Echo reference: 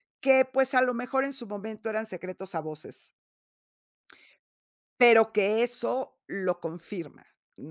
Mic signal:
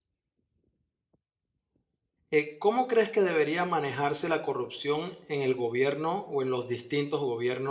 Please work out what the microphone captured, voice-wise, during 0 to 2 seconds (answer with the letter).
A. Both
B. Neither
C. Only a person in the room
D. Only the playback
B